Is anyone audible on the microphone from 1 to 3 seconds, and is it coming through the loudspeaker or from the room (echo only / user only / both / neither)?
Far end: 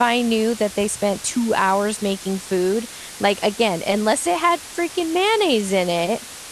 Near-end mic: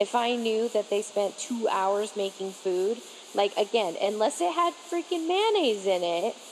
echo only